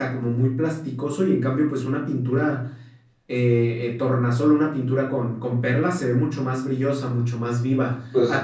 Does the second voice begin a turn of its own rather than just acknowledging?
No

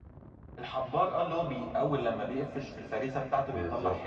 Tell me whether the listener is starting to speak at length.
Yes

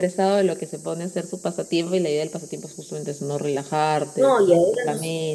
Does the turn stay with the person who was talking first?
No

